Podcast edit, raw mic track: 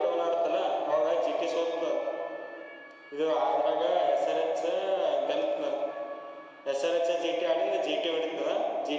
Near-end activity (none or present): none